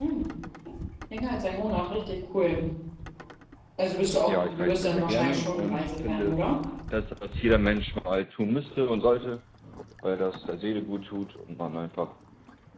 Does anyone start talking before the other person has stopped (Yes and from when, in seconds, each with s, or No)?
Yes, from 4.3 s